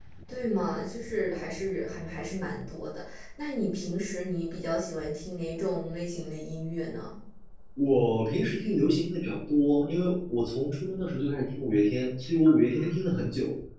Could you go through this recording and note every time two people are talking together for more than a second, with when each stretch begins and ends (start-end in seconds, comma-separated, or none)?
none